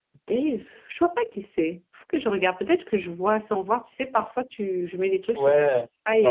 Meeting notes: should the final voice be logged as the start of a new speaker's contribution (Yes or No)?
Yes